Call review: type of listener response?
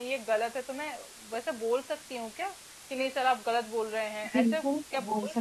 taking over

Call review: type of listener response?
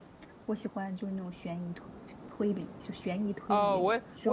taking over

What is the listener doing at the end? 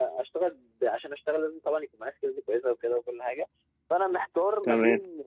listening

